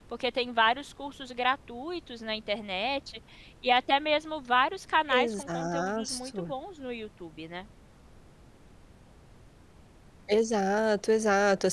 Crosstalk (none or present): present